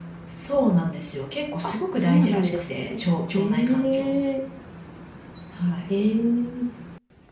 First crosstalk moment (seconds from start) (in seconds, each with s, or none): 1.6 s